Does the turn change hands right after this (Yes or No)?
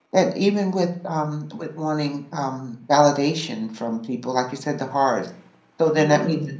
No